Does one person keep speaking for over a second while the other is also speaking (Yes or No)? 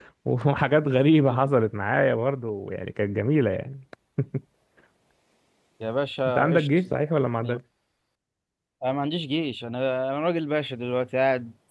No